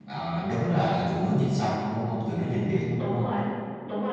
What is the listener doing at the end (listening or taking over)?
taking over